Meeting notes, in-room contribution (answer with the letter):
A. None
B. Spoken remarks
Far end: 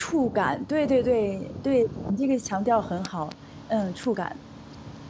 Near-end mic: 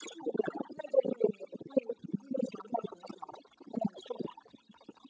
A